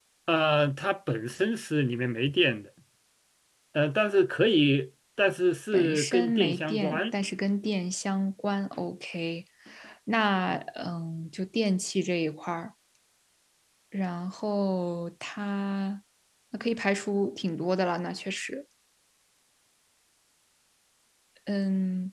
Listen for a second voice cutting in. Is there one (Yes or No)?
Yes